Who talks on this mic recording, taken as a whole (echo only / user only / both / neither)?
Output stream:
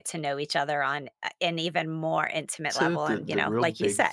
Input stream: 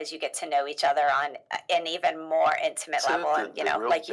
echo only